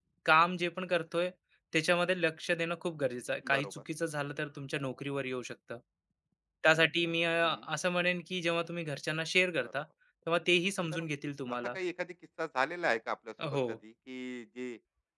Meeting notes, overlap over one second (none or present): none